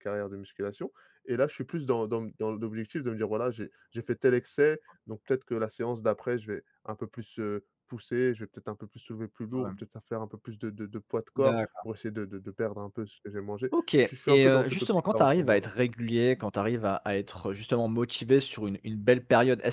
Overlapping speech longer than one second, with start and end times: 14.0-15.7

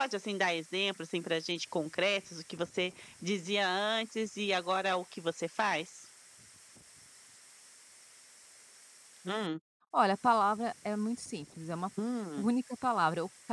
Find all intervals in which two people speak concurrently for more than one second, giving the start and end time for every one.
none

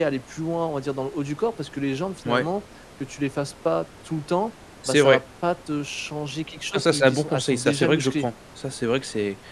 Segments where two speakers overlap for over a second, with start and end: 6.7-8.3

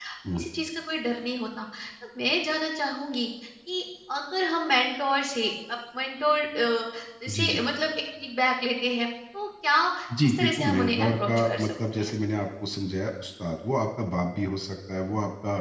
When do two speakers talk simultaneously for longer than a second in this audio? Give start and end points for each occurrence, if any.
10.2-12.1

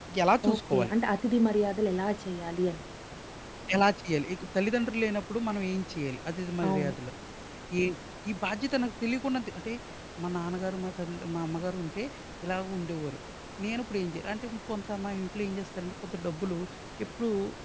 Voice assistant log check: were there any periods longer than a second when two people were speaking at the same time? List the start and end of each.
none

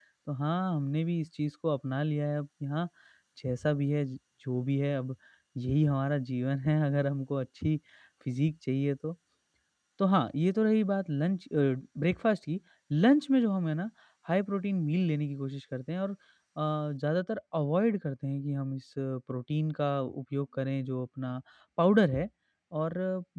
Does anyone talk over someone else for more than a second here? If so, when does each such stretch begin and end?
none

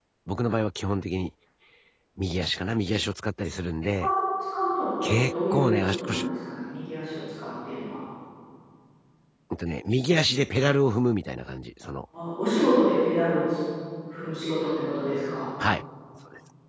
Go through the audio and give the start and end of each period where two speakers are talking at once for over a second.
5.0-6.2

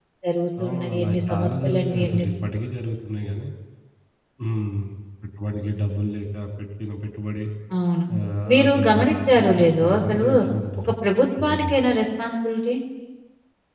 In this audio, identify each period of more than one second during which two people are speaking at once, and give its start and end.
0.6-2.3, 8.5-10.2

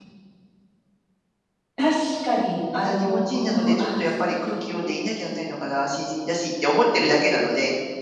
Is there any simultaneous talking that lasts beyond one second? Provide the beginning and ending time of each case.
2.8-5.0

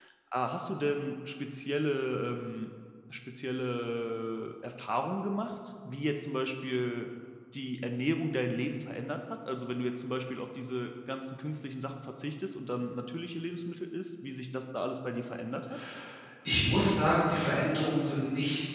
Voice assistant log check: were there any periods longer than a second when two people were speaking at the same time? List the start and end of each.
none

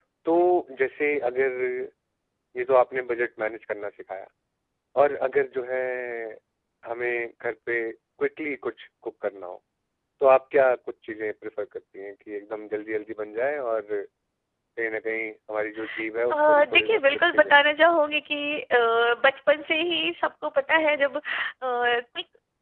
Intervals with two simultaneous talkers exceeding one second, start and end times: 16.3-17.6

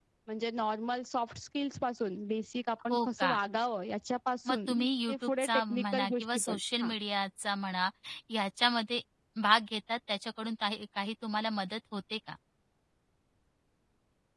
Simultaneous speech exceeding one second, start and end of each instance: 4.5-6.9

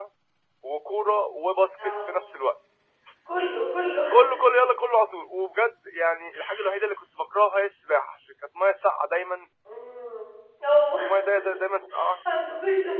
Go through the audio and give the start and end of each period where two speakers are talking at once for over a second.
none

